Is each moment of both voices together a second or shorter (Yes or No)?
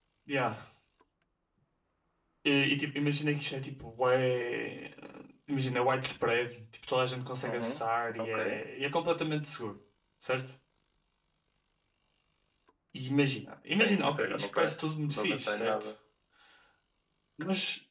No